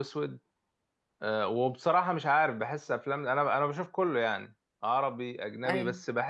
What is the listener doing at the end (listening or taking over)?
listening